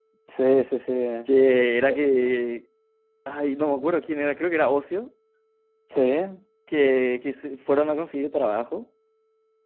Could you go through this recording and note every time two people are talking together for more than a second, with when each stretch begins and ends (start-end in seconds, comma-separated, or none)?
none